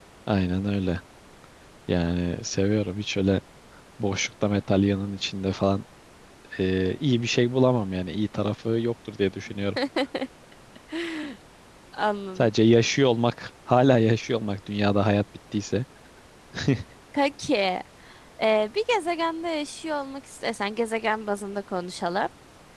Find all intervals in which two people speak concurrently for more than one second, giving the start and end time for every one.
none

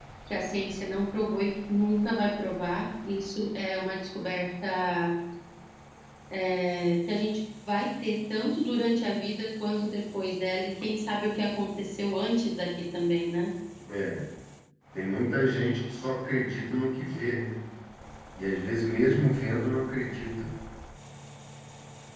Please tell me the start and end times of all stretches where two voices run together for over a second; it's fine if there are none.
none

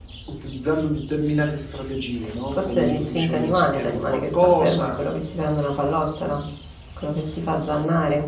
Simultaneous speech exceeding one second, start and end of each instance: 2.5-5.0

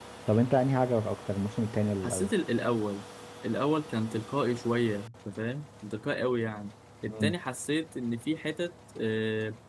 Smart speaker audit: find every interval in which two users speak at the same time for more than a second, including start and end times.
none

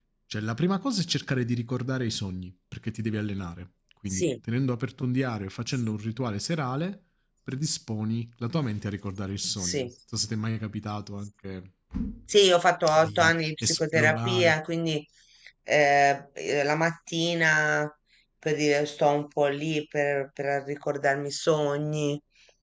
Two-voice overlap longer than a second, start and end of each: 13.0-14.5

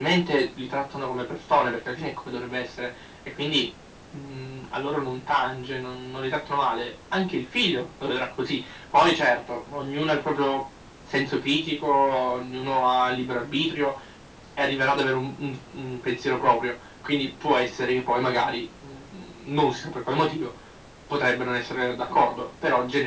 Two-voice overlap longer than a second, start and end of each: none

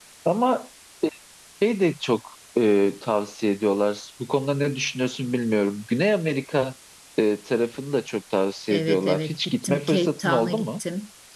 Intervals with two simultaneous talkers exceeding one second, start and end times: 8.7-10.8

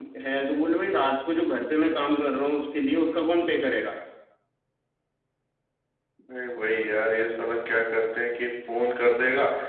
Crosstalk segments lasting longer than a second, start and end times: none

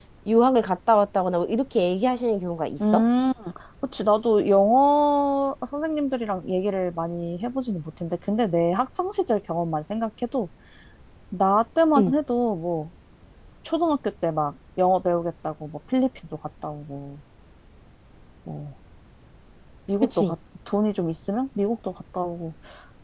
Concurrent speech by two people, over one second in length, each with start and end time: none

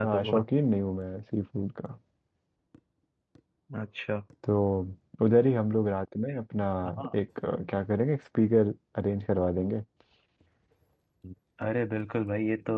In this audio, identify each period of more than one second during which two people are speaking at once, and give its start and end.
none

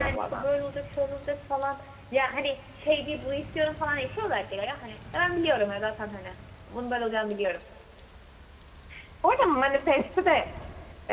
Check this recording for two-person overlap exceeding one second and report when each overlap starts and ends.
none

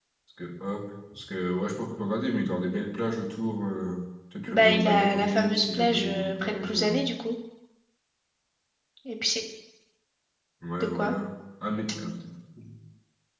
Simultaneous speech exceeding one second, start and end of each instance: 4.5-7.0

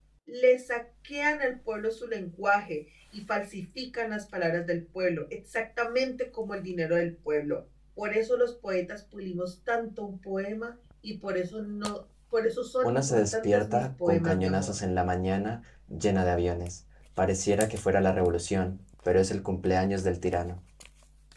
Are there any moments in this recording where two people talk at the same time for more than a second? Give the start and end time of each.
12.8-14.7

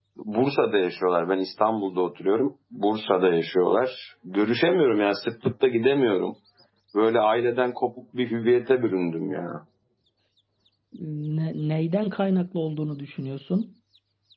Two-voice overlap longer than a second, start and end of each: none

